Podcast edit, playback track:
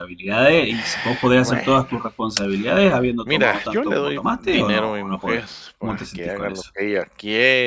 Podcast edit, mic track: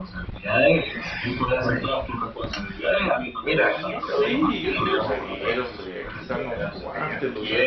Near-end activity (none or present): present